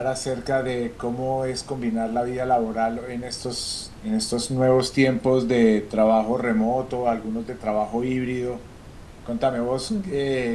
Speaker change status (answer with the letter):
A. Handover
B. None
B